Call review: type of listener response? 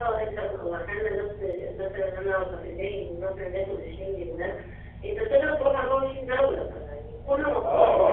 taking over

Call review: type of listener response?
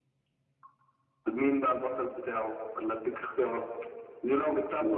listening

